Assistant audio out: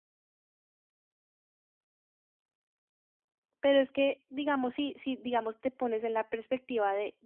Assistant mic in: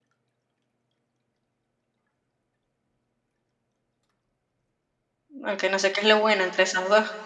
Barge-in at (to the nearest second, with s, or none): 5 s